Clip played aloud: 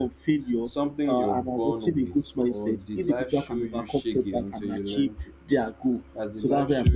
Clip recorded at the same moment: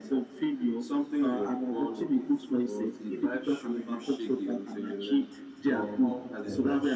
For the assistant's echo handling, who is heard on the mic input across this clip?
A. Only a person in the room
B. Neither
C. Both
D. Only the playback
C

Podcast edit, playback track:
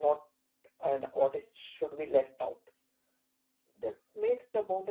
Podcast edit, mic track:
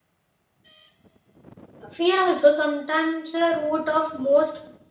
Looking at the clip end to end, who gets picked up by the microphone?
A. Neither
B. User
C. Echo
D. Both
B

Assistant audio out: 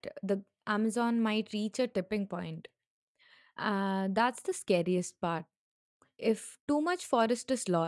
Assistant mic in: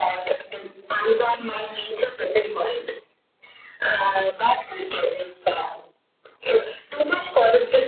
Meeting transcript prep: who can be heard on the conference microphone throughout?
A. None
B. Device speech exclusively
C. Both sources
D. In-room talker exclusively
B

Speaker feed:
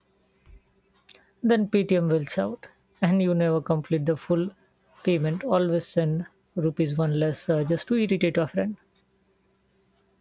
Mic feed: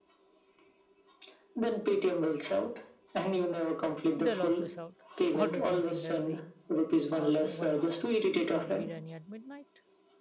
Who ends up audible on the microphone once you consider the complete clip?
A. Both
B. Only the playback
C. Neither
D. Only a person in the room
A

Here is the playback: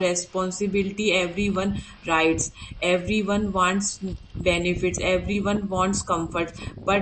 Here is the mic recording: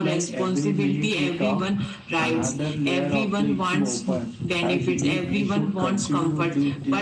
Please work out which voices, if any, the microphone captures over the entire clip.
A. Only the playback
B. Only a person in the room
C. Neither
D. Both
D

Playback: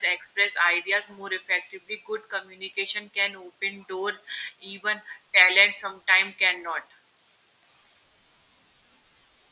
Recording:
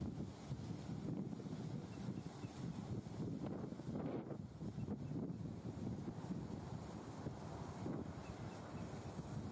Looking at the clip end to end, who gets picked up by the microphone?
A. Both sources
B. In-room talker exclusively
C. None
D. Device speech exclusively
C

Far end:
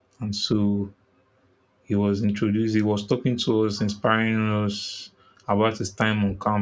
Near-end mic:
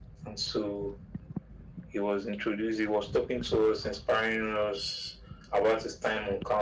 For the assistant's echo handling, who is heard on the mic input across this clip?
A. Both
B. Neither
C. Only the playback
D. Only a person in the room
C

